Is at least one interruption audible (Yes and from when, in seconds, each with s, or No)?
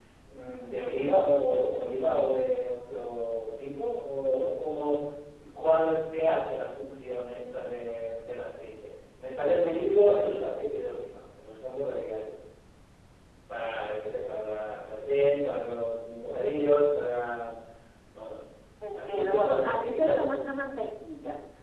Yes, from 19.0 s